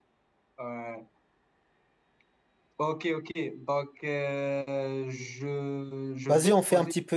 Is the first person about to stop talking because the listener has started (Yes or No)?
Yes